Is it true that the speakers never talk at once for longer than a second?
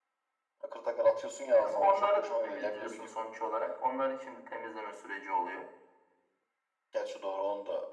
No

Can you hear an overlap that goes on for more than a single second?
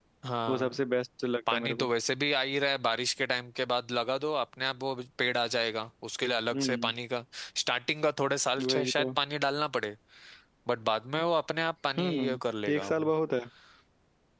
No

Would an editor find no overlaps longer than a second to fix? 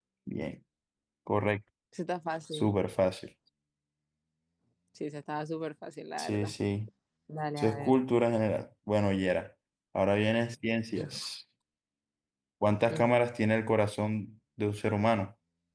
Yes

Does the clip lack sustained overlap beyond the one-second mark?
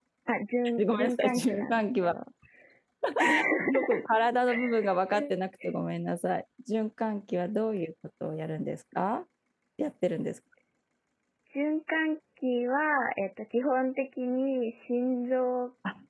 No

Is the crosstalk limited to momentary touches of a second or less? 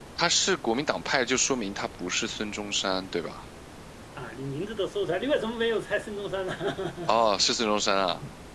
Yes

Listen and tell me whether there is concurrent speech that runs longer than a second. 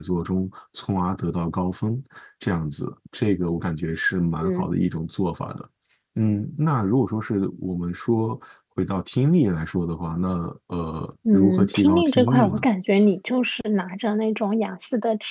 Yes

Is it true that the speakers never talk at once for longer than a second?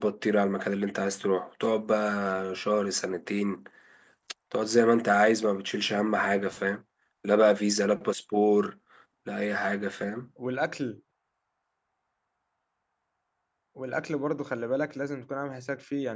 Yes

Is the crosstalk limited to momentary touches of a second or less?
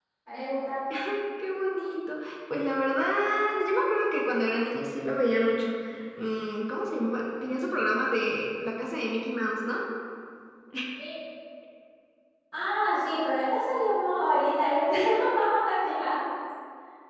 Yes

